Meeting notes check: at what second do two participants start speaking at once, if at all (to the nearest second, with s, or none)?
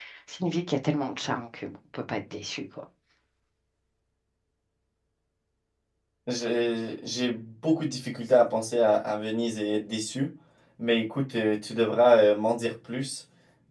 none